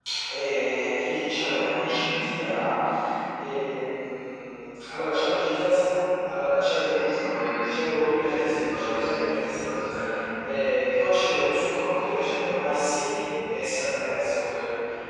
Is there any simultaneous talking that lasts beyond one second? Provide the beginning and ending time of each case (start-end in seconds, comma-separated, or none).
7.7-9.2